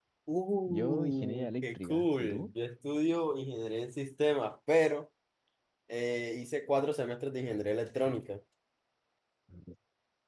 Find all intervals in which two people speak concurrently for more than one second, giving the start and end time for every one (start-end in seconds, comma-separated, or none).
0.7-2.5